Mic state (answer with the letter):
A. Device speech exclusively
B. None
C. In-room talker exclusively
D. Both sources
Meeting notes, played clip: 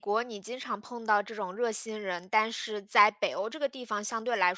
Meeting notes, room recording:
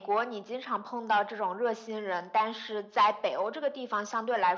A